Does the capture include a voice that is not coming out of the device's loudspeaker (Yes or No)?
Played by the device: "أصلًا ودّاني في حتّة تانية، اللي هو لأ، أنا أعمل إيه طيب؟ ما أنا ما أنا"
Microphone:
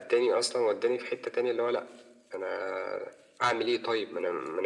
No